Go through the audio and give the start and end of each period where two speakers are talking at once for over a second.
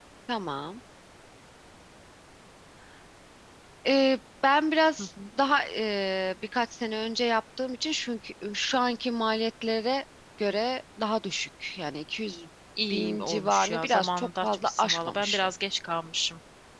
12.9-15.5

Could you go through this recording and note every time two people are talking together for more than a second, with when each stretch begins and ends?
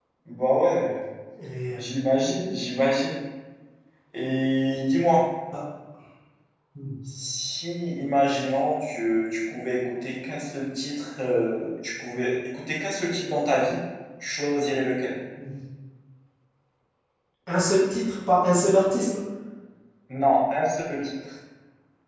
none

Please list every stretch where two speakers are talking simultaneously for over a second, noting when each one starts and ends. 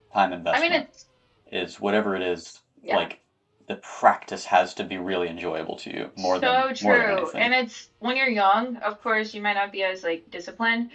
6.2-7.5

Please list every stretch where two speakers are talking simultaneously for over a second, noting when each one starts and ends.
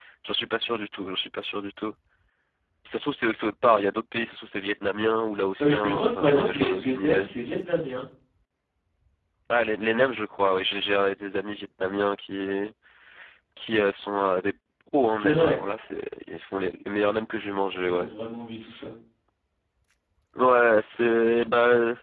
5.6-7.3

